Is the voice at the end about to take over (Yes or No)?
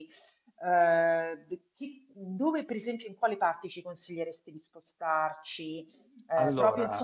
No